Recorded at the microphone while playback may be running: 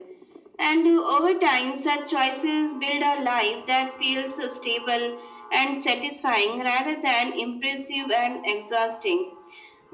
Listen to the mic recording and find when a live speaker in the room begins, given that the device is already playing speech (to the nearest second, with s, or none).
none